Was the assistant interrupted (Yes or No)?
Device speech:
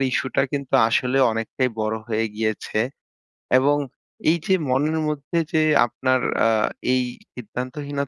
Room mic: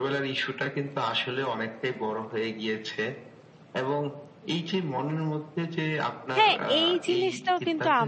Yes